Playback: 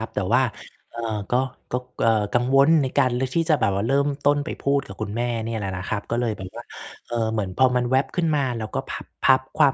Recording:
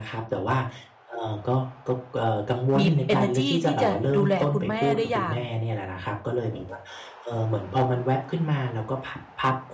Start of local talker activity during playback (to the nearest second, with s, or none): 3 s